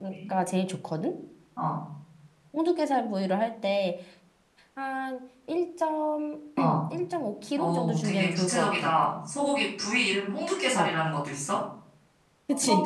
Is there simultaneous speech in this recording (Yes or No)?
Yes